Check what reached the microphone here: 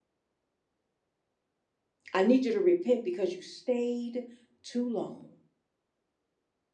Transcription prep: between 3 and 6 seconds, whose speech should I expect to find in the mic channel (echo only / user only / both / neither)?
user only